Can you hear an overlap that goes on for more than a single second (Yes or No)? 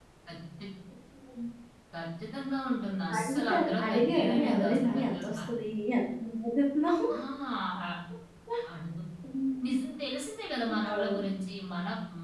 Yes